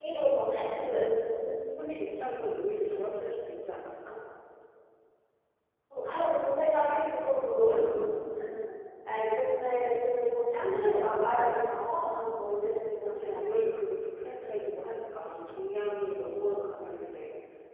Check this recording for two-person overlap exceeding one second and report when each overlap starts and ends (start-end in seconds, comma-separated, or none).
none